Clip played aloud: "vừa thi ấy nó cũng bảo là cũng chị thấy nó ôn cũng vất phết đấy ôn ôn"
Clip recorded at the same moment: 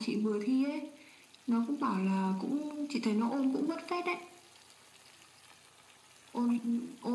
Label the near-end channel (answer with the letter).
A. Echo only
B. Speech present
A